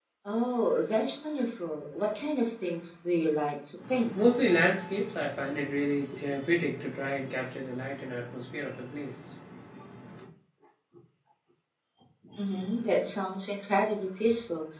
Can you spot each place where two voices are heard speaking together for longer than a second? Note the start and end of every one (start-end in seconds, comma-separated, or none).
none